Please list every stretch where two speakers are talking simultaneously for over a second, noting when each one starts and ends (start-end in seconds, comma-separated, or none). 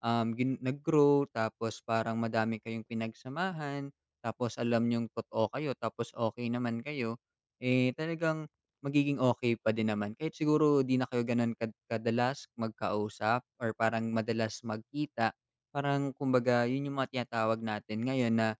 none